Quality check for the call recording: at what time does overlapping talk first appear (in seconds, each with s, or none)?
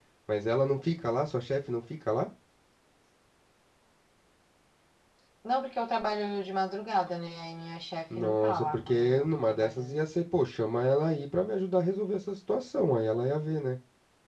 8.1 s